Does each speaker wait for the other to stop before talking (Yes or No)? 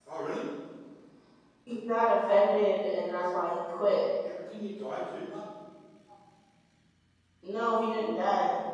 Yes